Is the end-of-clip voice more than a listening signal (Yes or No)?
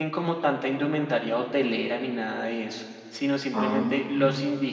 No